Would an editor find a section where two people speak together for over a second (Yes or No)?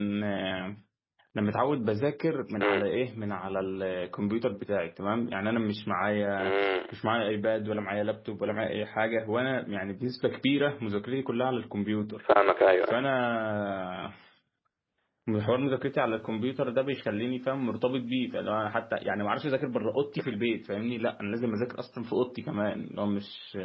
No